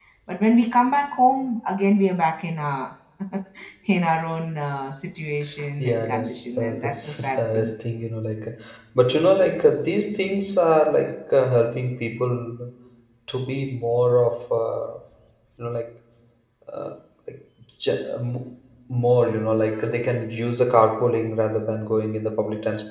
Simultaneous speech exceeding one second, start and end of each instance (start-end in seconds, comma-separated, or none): 5.8-7.7